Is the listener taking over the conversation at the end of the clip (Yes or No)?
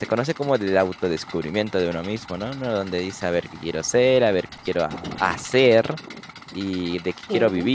No